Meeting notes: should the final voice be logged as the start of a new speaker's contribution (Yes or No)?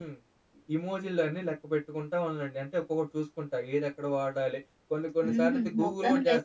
Yes